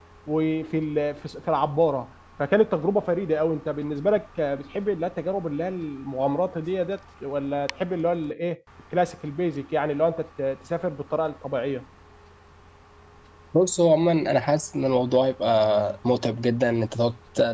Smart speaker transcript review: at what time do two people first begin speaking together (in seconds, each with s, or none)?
none